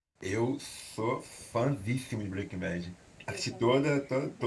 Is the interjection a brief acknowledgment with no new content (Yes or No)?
Yes